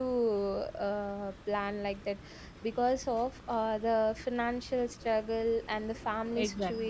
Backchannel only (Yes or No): Yes